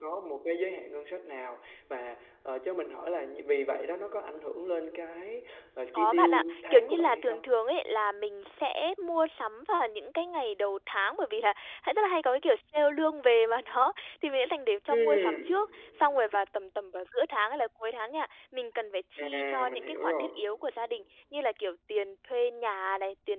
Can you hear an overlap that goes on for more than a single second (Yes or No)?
Yes